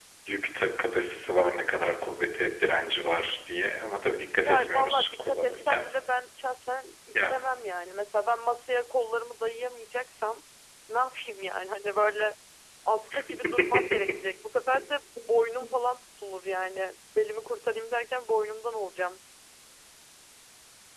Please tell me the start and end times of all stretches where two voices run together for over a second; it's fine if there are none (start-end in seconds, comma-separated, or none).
4.4-5.9